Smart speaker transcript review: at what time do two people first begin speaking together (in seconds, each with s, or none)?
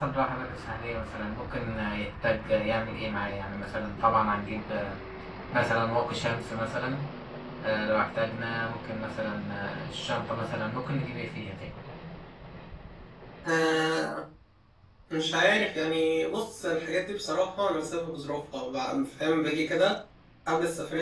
none